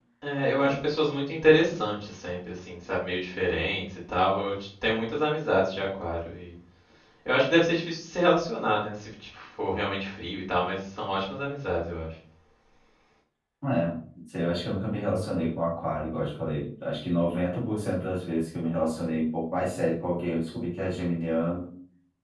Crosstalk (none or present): none